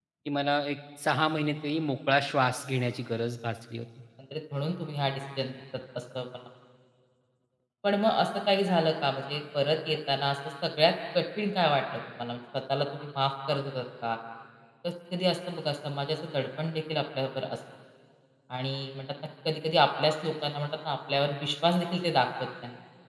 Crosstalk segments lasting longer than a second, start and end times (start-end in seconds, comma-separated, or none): none